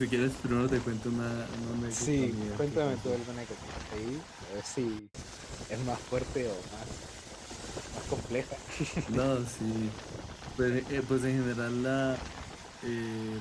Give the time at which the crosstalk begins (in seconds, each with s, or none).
1.9 s